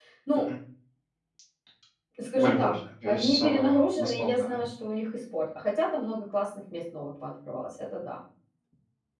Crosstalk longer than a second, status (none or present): present